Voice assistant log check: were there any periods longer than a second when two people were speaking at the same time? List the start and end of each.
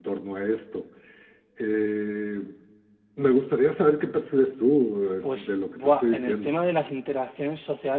5.2-6.5

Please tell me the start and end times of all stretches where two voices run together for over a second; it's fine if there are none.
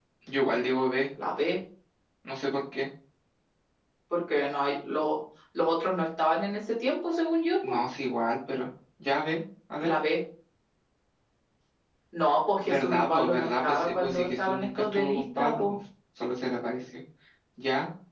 12.6-15.8

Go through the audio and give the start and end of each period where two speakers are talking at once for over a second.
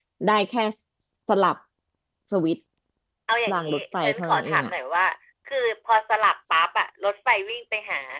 3.5-4.7

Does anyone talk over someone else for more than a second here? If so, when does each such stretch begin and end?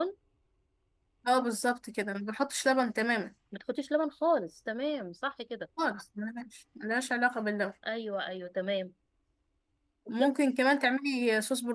none

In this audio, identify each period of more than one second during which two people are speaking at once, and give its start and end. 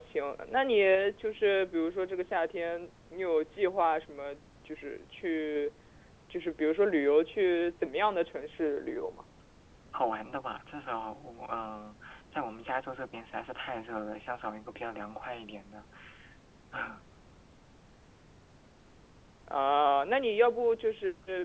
none

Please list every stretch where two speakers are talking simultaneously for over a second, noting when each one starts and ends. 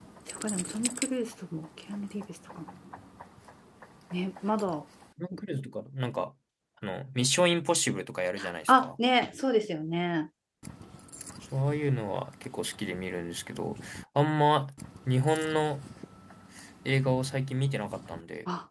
none

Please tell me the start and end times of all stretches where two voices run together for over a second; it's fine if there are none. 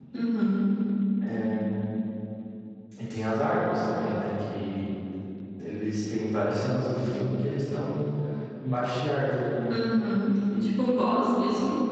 none

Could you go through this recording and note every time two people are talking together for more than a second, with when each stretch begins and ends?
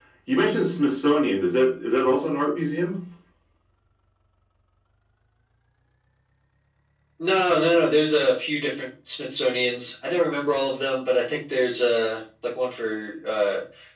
none

